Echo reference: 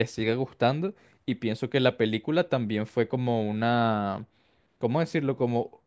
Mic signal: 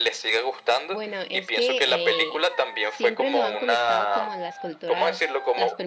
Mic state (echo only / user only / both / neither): both